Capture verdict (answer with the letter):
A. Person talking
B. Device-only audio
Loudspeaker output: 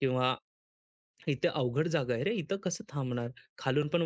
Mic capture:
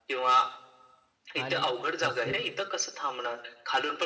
A